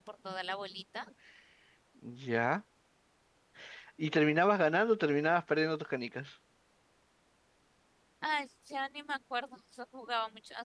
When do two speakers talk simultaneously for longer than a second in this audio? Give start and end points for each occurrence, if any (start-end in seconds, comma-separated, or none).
none